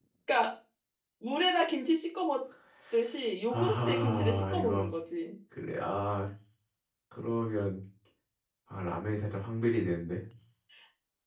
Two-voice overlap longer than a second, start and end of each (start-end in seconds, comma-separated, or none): 3.5-4.9